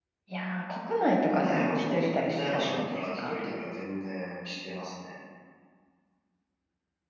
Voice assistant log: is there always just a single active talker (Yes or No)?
No